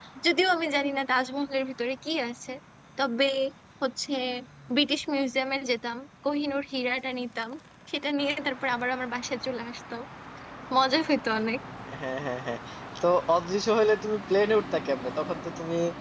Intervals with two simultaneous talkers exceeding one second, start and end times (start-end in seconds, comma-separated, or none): none